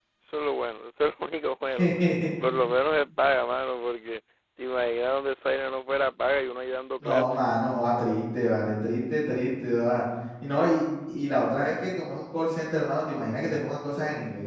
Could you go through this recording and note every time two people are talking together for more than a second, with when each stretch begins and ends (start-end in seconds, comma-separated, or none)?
none